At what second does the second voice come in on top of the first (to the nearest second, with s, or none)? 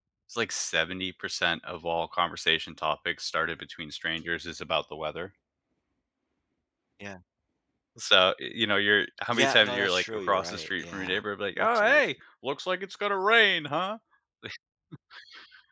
9 s